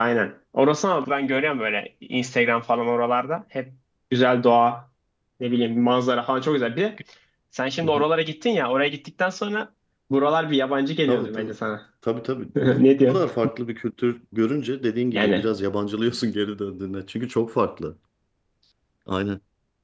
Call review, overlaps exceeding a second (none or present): none